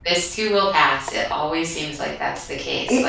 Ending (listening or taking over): taking over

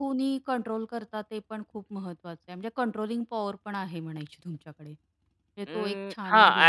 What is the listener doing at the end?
taking over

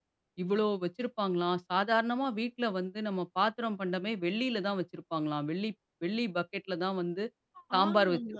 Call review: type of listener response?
taking over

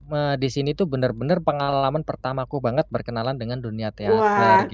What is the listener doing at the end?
taking over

